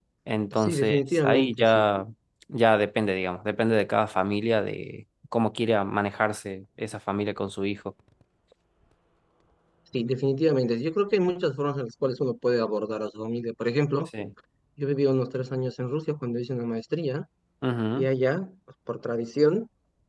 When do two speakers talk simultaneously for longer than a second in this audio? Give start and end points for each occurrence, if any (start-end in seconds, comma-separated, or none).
0.6-1.8